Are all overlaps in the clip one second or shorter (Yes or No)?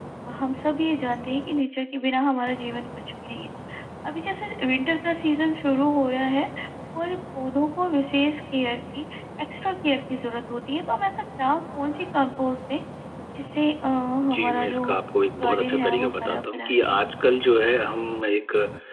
No